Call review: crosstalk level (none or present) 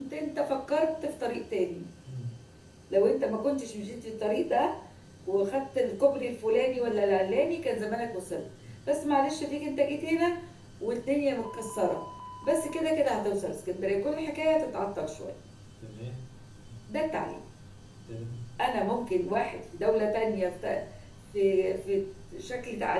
none